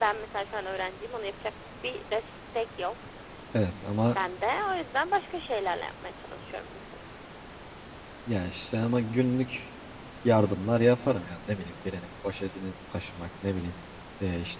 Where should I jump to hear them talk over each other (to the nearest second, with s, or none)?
none